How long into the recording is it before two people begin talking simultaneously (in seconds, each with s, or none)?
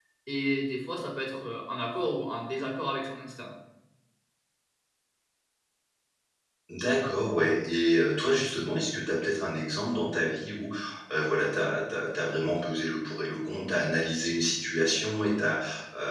none